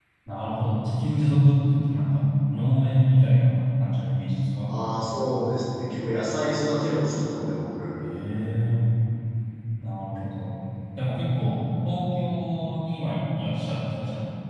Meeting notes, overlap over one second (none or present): none